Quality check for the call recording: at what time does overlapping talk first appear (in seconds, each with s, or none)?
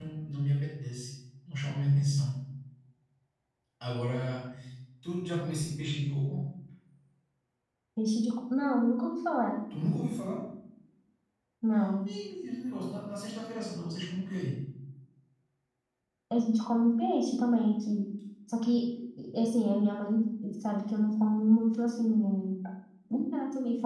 none